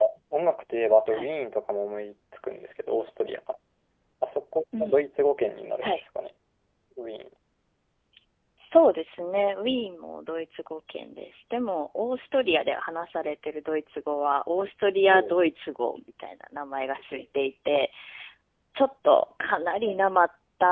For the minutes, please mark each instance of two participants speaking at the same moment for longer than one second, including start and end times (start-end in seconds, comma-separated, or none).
none